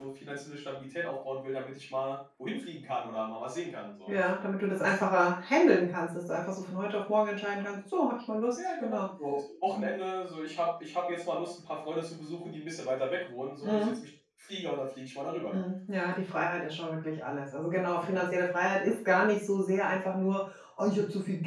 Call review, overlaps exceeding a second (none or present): none